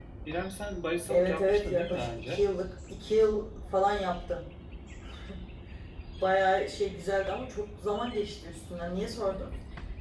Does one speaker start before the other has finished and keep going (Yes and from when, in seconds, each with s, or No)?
Yes, from 1.1 s